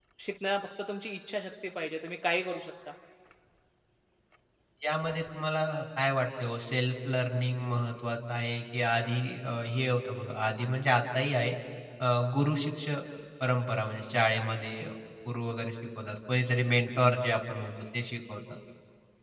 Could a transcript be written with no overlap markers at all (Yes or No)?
Yes